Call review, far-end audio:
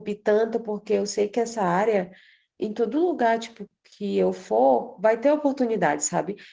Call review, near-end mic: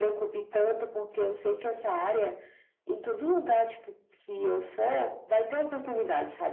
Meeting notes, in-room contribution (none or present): present